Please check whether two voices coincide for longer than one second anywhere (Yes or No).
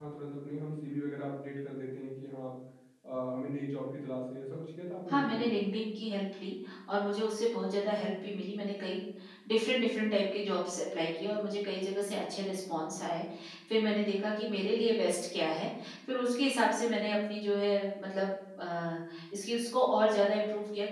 No